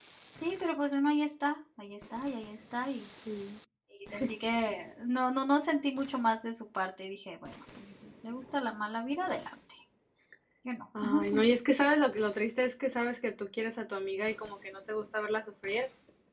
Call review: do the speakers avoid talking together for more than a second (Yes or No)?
Yes